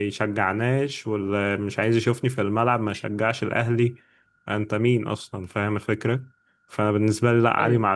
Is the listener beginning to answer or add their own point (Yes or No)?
No